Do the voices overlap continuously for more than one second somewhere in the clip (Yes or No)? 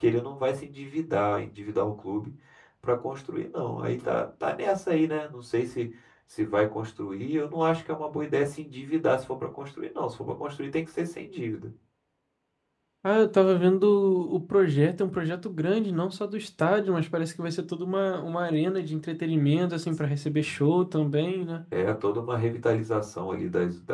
No